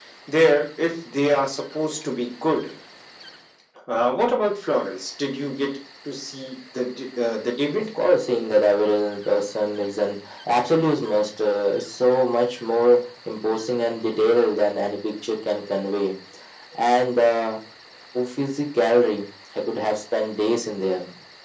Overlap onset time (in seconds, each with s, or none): none